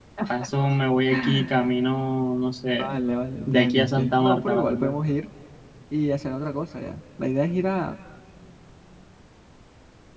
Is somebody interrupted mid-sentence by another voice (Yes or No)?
Yes